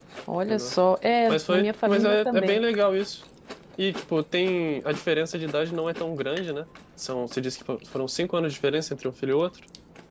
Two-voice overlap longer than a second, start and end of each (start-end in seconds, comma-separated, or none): 1.3-2.6